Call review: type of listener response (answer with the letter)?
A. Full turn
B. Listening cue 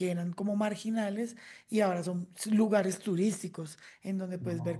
B